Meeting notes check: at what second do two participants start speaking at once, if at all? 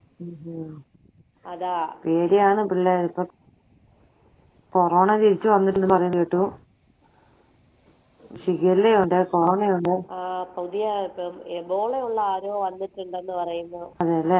none

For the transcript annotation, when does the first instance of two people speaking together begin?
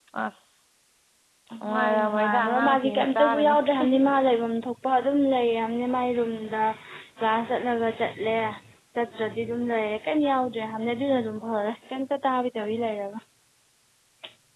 1.7 s

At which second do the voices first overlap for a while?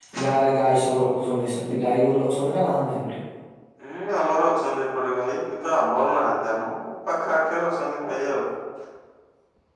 none

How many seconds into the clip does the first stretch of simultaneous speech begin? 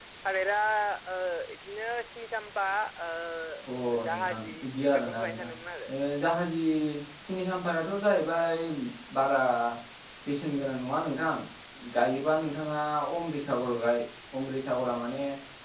4.1 s

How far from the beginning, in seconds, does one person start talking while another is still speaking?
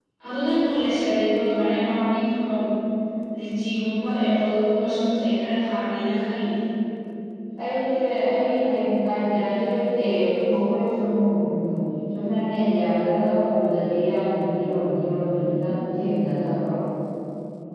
none

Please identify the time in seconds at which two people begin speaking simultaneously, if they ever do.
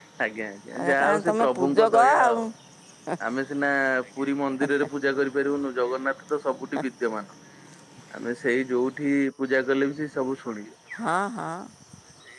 0.8 s

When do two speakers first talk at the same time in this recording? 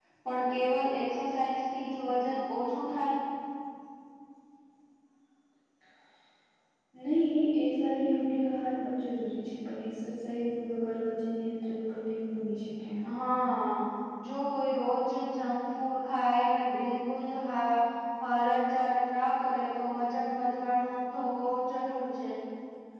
none

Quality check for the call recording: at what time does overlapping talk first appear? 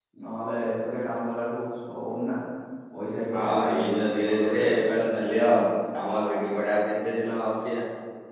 3.3 s

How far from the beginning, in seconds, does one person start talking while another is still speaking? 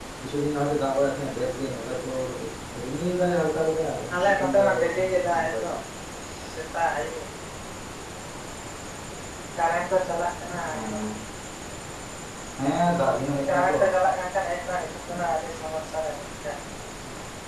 4.1 s

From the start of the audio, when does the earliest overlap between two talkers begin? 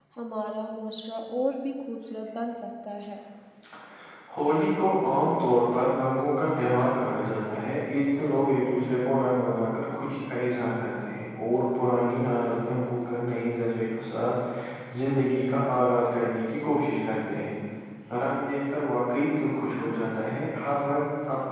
none

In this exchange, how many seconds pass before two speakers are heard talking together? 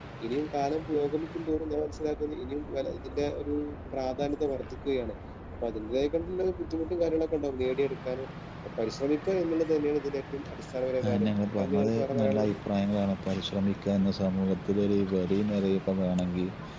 11.0 s

